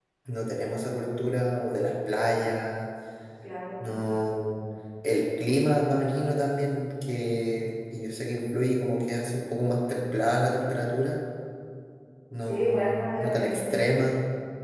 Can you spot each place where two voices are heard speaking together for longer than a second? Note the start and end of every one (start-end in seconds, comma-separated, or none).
12.4-13.7